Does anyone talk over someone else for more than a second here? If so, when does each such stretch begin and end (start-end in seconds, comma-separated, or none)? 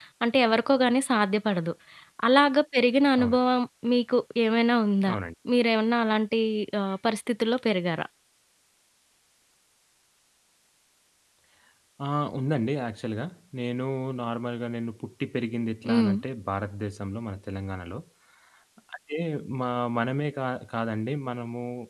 none